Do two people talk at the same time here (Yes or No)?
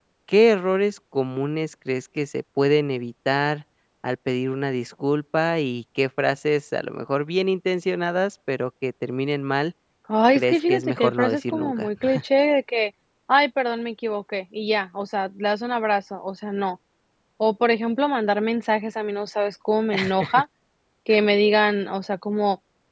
Yes